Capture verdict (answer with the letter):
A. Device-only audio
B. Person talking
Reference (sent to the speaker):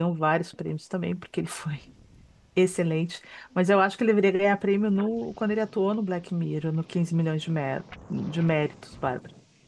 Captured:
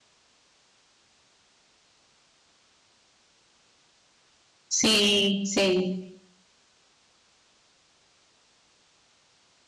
B